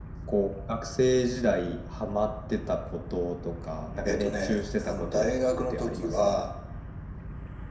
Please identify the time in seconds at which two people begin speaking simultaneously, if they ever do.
4.0 s

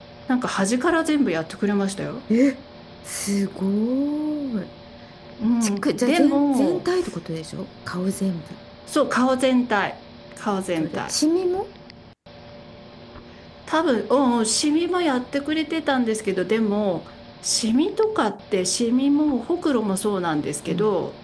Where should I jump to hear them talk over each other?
5.6 s

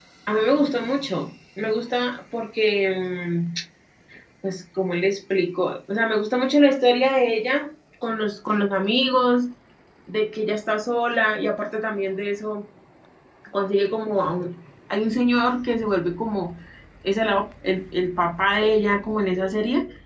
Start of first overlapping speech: none

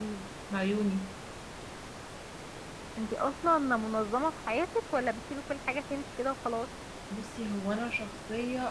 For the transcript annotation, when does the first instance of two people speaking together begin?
none

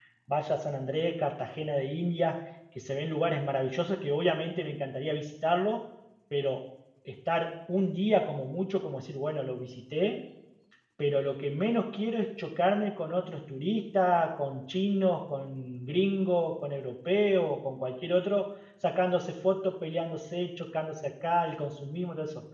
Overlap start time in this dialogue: none

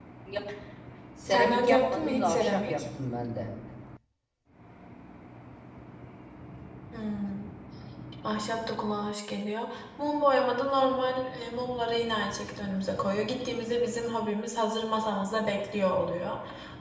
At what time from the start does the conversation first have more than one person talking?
1.3 s

